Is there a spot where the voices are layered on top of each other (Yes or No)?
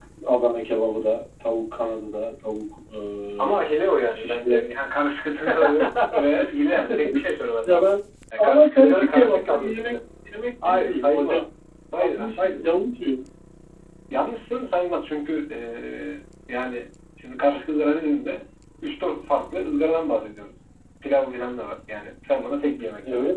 Yes